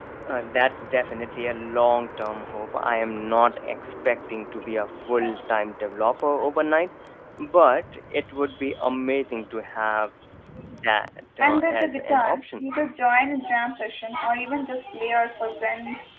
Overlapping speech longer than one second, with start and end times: 11.4-12.6

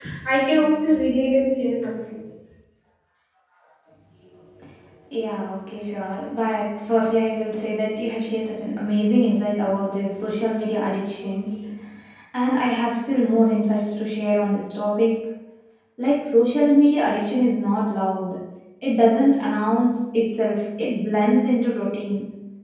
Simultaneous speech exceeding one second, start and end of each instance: none

